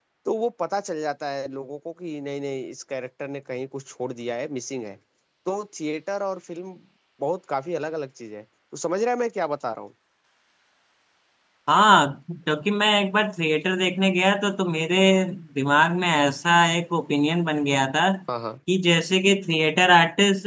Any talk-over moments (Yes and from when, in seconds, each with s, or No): No